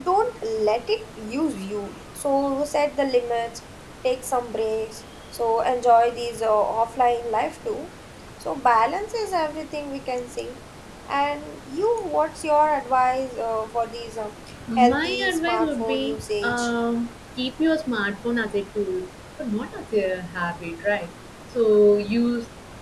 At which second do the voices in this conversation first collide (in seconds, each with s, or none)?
14.8 s